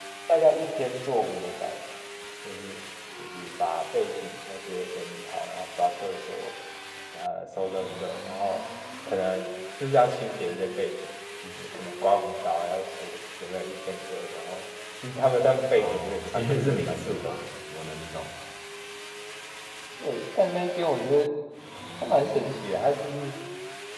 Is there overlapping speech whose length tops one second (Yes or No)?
Yes